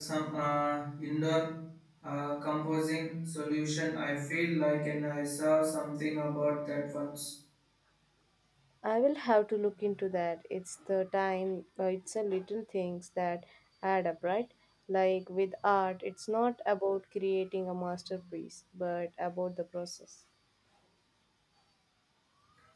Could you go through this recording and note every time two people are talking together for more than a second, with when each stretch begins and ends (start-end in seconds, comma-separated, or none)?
none